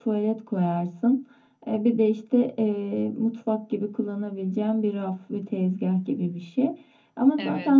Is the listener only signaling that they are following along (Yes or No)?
Yes